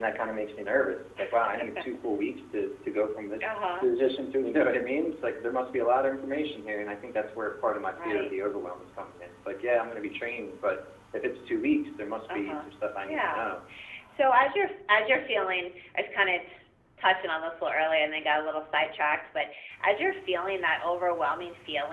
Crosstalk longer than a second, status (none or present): none